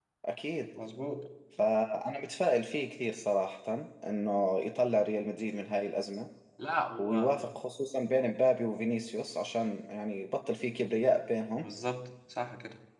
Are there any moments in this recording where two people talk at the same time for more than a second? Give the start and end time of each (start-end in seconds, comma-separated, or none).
none